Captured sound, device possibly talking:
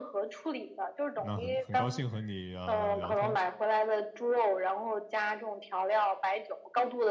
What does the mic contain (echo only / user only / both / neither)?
both